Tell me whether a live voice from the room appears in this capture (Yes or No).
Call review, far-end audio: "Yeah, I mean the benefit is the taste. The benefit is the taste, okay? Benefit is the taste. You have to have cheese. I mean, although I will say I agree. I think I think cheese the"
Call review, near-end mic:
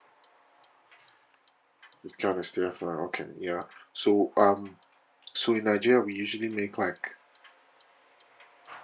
Yes